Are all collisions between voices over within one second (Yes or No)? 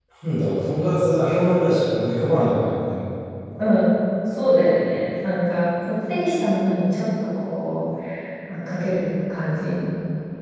Yes